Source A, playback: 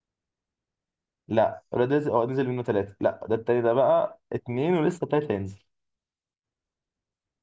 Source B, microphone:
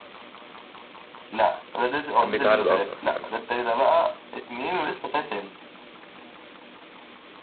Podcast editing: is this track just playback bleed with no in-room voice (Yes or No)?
No